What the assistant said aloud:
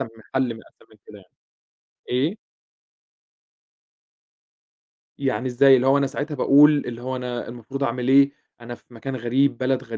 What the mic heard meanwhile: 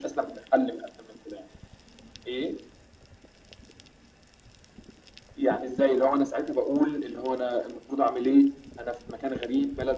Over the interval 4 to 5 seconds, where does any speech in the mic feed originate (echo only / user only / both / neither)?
neither